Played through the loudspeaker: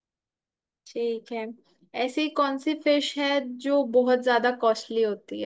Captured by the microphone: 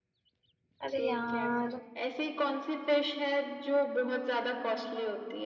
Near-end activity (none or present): present